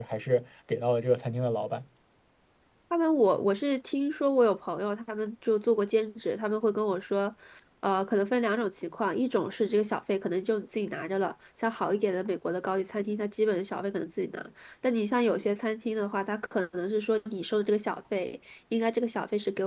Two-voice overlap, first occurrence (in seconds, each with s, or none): none